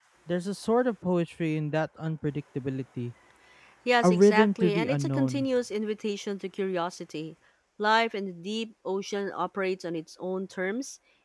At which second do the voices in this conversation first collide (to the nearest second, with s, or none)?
4 s